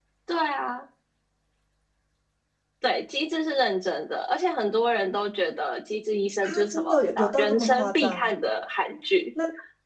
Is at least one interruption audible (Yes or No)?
Yes